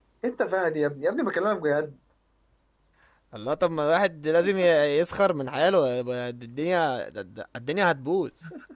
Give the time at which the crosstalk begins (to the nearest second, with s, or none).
none